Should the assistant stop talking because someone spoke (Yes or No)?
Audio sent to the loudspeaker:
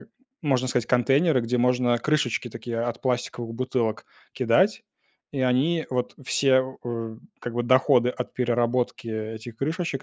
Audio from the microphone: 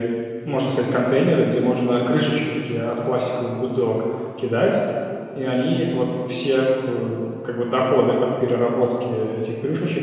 No